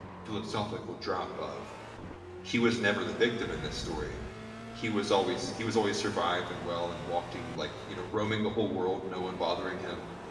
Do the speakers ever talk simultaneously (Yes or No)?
No